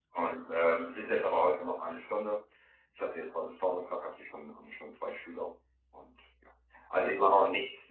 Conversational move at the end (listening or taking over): listening